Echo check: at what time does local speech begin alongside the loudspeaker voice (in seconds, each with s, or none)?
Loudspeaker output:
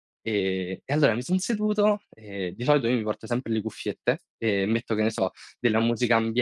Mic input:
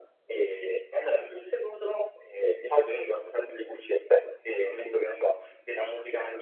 none